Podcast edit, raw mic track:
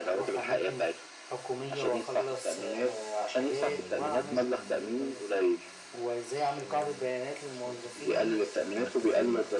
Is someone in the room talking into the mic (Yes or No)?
Yes